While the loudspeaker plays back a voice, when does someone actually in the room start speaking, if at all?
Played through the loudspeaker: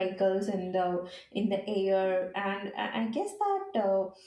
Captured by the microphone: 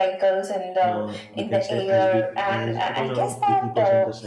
1 s

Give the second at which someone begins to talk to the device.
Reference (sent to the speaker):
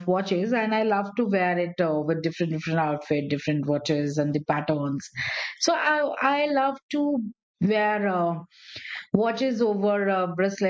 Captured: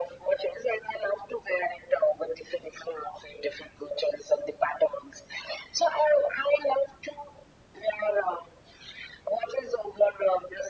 none

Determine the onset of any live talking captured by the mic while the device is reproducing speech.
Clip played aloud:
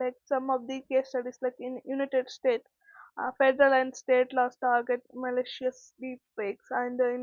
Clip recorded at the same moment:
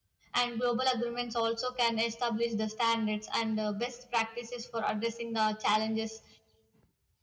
0 s

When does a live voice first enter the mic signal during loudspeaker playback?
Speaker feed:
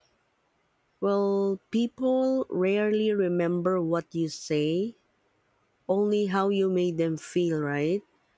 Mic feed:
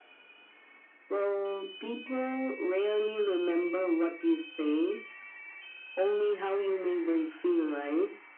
none

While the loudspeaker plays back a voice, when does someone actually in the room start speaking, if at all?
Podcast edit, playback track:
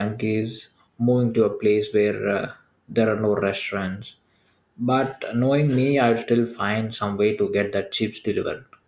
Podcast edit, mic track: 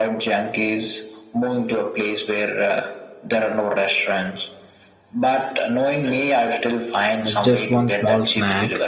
7 s

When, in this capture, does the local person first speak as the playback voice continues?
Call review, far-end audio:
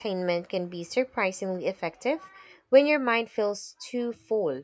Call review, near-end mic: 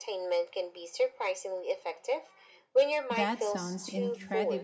3 s

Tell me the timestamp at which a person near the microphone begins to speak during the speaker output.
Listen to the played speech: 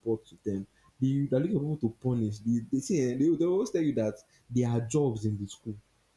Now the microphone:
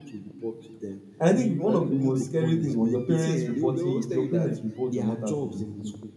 1 s

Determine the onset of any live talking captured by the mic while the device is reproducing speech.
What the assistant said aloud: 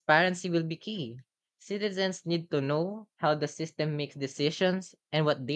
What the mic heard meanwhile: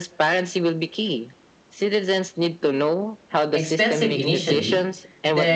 4 s

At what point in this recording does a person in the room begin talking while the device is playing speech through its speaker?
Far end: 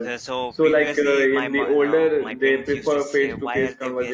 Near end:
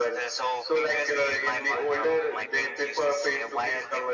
none

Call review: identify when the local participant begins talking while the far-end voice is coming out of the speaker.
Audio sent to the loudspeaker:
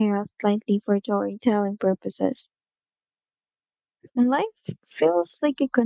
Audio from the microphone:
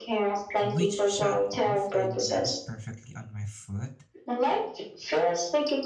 1 s

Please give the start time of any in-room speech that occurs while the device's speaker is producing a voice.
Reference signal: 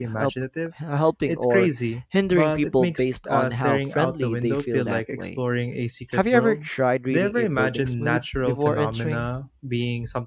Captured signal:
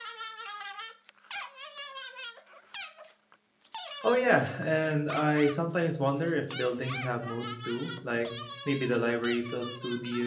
4 s

